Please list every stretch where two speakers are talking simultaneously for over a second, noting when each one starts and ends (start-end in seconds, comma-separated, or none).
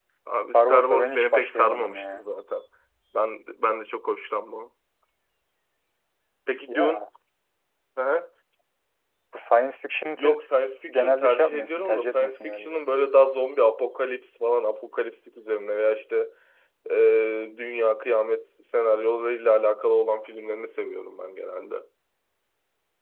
0.5-2.2, 10.9-12.8